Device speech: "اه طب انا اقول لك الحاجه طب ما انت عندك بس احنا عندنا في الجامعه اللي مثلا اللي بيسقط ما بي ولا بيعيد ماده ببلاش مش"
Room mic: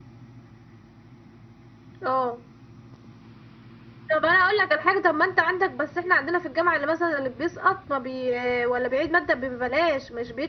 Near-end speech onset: none

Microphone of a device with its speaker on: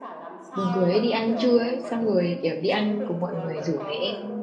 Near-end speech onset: 0.5 s

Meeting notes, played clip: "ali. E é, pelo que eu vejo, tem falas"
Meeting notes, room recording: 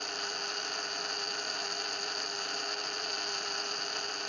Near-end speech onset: none

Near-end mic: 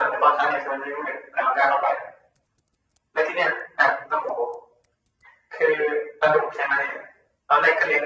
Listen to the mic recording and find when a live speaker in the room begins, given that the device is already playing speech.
none

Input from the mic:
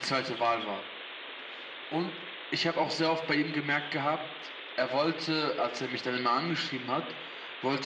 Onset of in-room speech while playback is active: none

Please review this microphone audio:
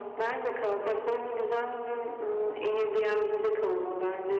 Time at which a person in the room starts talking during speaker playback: none

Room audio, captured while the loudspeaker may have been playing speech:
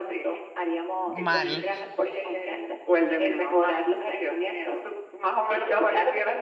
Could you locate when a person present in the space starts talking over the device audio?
1.1 s

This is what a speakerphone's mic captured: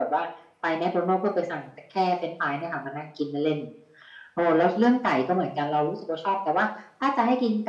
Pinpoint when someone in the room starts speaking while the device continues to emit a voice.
none

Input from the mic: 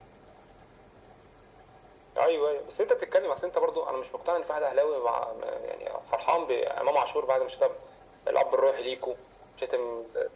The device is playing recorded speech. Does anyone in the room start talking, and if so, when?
none

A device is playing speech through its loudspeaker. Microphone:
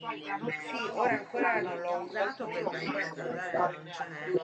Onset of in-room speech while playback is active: 0.5 s

